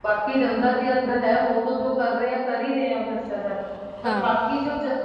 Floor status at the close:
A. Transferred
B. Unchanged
B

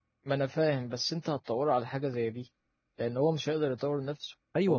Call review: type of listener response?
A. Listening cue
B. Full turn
B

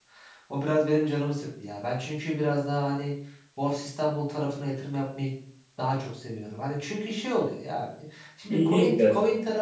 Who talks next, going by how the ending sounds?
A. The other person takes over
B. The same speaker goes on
B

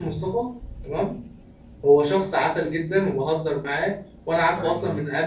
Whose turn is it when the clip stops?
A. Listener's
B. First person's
B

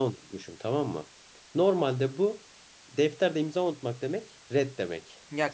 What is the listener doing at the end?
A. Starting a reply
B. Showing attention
A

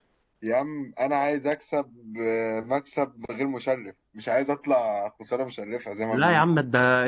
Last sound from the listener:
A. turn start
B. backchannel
A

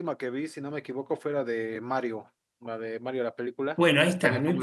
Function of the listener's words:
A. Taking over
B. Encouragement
A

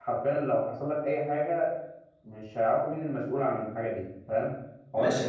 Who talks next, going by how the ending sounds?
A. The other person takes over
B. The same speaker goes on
A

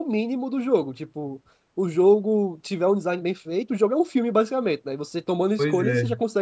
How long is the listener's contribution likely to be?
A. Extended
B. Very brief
B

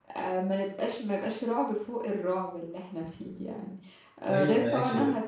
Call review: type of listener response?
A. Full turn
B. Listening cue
B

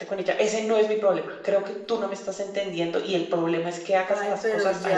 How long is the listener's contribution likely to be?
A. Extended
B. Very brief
A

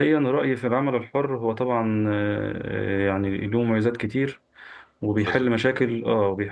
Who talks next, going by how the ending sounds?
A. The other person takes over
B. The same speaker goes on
B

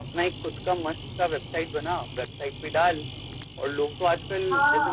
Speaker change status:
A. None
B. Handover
B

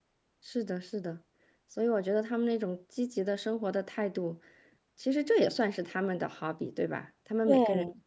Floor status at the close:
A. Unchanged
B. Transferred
A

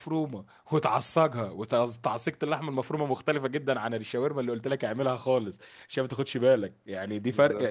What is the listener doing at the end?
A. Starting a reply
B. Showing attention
B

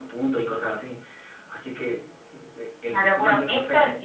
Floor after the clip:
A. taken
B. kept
A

